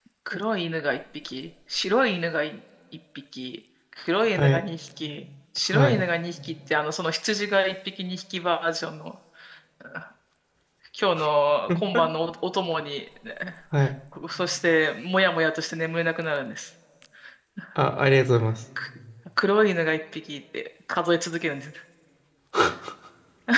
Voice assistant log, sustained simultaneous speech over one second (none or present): none